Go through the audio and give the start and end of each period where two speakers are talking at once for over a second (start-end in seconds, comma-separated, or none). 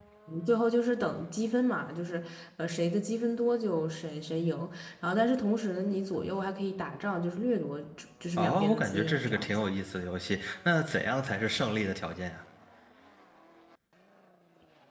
8.4-9.6